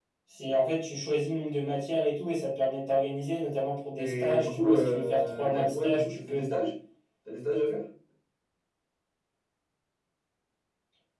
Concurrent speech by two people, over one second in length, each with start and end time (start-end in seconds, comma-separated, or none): 4.0-6.5